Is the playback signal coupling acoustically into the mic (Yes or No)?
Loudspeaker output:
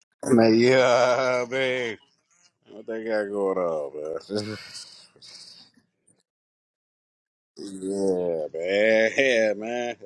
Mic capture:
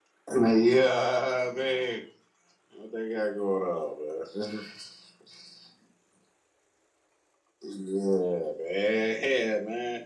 Yes